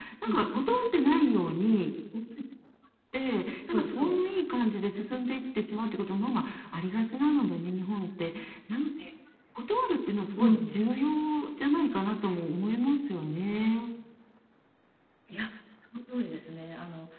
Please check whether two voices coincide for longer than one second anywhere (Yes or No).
No